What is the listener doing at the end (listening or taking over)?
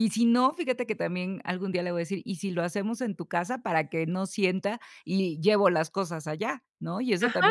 taking over